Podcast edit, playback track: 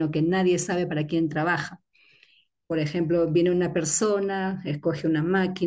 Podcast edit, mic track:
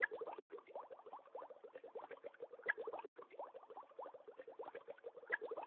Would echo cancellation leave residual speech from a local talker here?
No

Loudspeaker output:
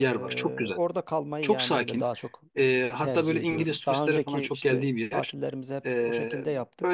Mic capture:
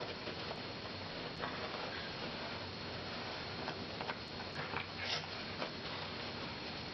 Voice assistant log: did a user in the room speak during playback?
No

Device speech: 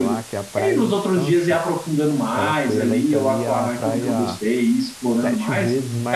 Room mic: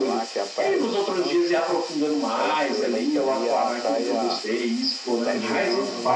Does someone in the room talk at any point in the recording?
Yes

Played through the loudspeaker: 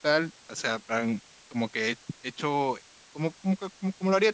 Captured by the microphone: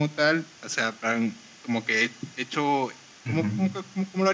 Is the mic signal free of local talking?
No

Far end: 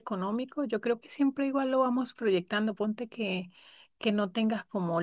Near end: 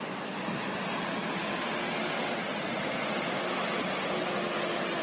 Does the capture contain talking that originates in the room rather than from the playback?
No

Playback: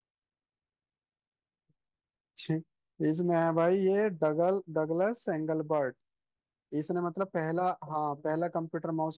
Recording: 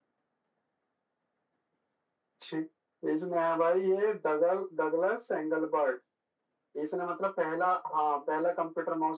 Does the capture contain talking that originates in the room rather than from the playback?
No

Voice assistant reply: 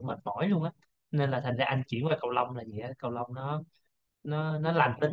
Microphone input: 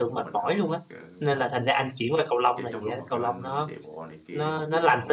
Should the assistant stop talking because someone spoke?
Yes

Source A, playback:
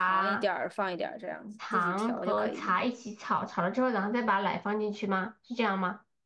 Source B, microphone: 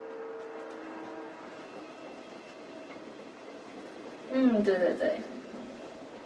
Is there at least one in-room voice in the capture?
Yes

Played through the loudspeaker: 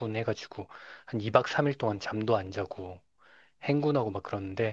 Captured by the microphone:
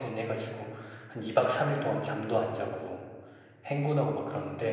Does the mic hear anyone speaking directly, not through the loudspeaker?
No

